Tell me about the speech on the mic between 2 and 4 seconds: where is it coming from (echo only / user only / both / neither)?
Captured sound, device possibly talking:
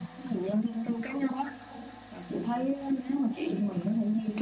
echo only